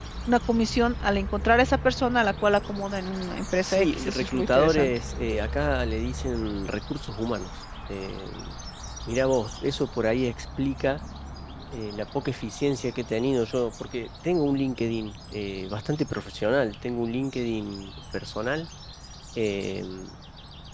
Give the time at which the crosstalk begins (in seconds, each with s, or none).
3.6 s